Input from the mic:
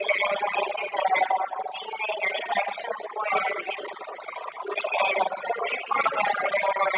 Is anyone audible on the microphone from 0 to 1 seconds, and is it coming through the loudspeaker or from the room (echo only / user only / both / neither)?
echo only